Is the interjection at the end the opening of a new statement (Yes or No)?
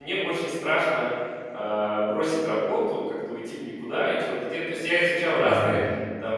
No